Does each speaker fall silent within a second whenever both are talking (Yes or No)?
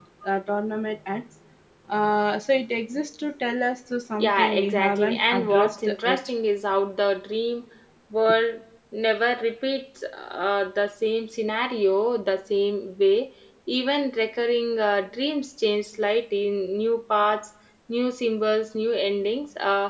No